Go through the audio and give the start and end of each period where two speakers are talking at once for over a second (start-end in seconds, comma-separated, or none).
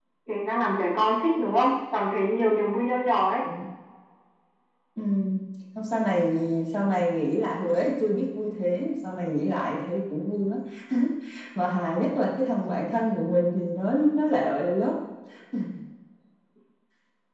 none